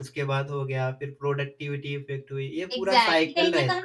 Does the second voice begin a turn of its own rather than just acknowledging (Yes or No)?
Yes